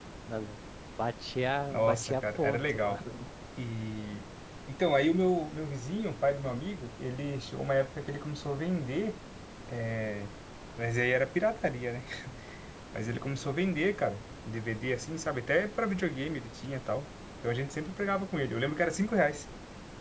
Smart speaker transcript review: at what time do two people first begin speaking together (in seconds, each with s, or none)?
1.7 s